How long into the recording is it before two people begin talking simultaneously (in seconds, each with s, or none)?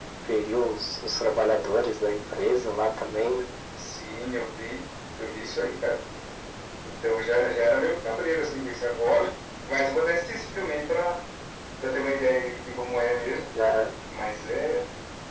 none